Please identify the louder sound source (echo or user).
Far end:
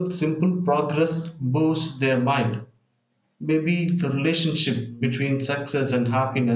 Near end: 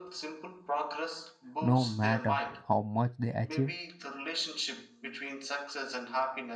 user